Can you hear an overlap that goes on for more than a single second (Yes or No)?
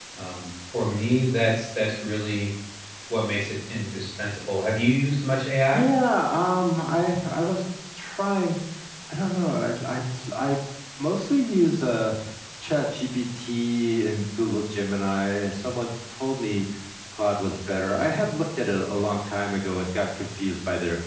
No